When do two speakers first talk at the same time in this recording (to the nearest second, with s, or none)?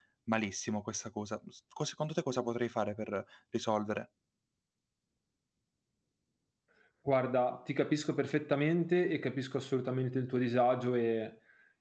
none